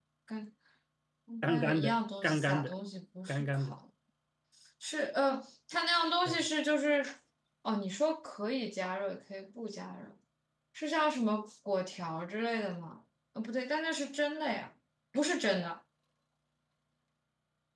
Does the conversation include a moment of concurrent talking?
Yes, from 1.4 s

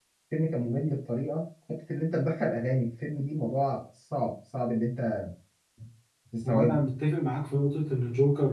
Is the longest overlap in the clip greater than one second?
No

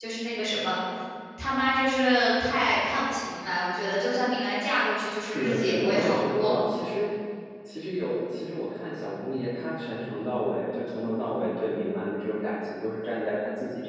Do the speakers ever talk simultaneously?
Yes, from 5.2 s

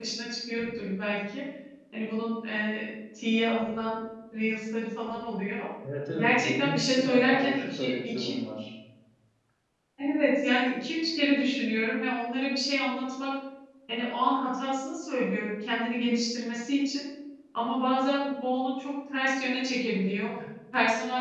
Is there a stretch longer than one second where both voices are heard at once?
Yes, from 6.1 s

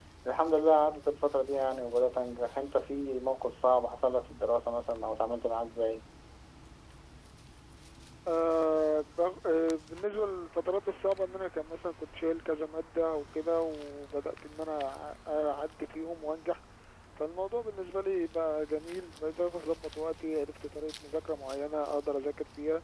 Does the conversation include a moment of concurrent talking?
No

